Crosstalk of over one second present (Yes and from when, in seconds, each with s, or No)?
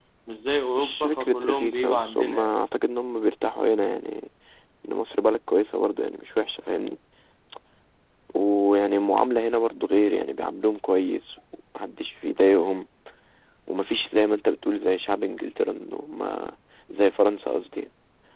Yes, from 0.8 s